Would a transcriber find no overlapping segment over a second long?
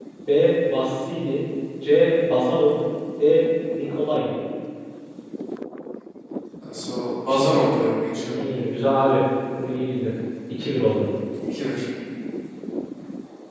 Yes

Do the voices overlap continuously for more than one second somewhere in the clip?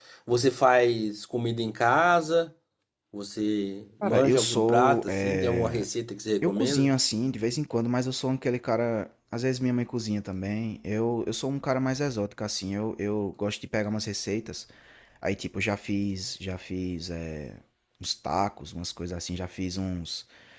Yes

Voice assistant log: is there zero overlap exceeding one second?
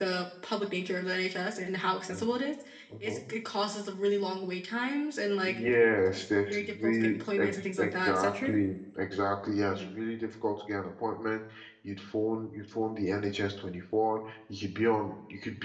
No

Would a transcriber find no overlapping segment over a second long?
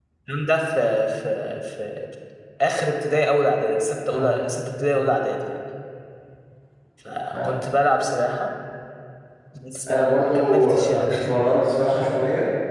No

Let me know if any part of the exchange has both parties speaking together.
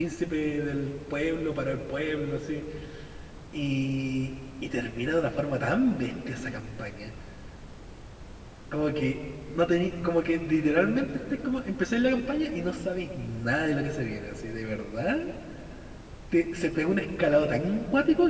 No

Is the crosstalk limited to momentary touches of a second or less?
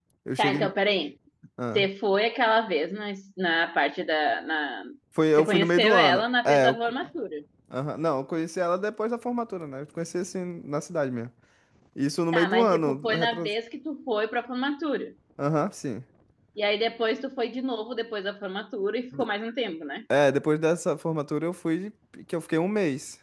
No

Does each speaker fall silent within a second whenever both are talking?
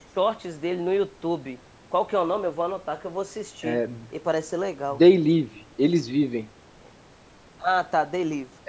Yes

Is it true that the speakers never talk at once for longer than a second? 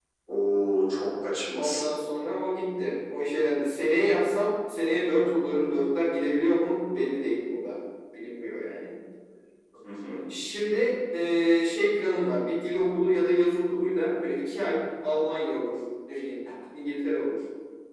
Yes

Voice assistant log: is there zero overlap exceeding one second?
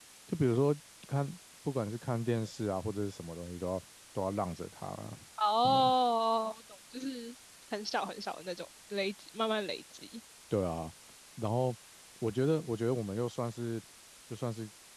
Yes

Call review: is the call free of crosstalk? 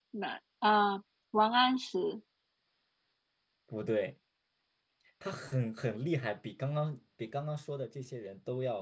Yes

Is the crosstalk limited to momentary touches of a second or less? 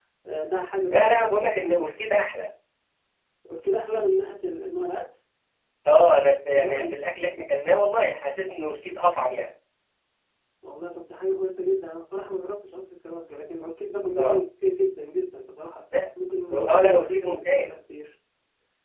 No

